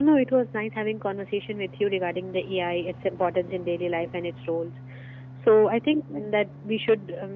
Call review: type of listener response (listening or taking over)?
listening